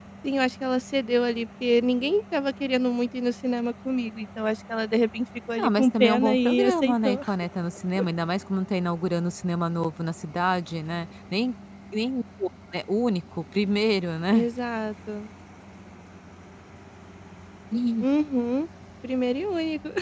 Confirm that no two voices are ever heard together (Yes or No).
No